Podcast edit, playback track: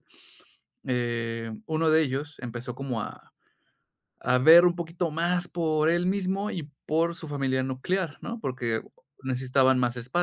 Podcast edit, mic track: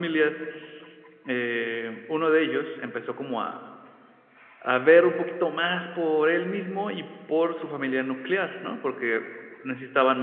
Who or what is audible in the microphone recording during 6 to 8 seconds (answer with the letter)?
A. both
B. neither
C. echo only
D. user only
C